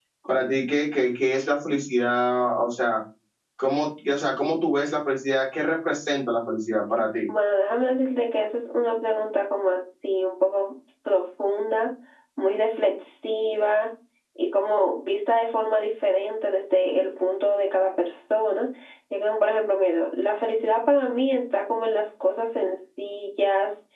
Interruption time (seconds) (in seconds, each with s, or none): none